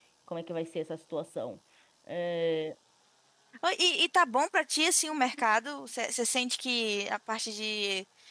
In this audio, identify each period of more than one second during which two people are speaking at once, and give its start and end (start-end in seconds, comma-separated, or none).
none